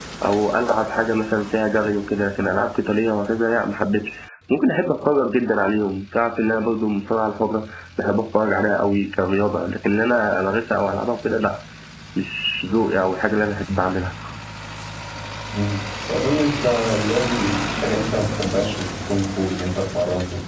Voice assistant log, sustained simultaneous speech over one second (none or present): none